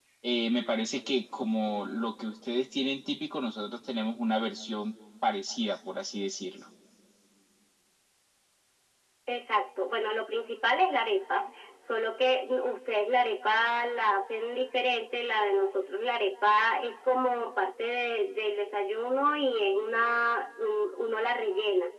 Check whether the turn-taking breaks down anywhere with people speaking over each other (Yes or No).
No